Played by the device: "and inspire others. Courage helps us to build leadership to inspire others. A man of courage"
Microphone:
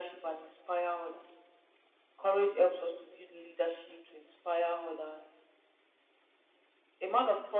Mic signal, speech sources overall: echo only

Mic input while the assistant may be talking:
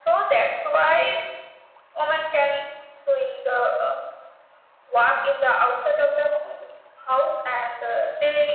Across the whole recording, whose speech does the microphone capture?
echo only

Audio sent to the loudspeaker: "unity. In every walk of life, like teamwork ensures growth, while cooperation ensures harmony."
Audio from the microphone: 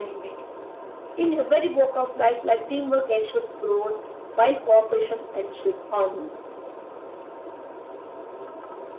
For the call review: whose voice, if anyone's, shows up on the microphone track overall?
echo only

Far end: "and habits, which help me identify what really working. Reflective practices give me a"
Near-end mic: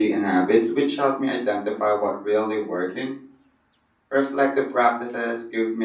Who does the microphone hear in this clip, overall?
echo only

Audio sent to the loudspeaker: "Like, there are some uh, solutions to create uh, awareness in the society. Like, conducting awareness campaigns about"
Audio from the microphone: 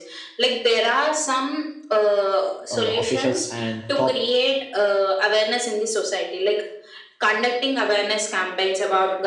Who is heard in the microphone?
both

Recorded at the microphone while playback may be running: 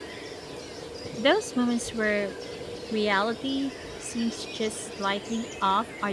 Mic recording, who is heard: user only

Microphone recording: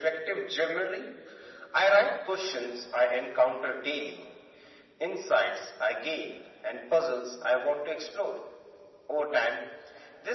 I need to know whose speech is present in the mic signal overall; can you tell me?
echo only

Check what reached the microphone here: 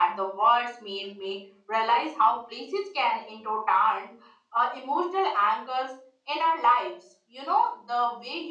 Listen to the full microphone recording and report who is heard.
echo only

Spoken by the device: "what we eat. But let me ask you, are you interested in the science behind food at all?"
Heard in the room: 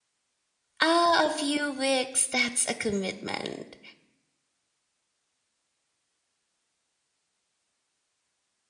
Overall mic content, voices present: user only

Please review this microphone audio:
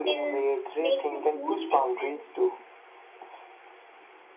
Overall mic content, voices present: echo only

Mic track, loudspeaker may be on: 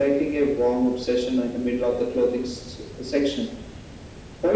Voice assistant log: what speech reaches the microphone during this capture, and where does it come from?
echo only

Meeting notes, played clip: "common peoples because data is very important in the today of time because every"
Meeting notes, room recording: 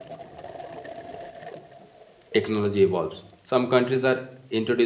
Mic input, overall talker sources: user only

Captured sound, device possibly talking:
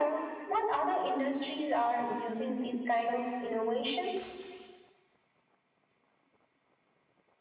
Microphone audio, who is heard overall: echo only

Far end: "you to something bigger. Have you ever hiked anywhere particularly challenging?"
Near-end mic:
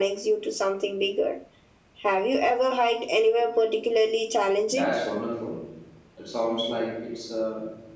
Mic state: both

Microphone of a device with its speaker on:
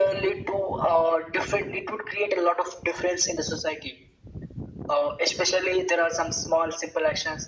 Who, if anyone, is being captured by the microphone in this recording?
echo only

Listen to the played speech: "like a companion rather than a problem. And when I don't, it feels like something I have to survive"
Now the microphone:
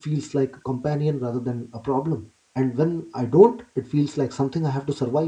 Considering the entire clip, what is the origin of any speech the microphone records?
echo only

